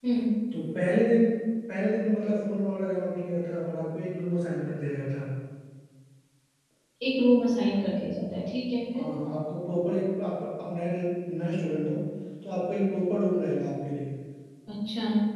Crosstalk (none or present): none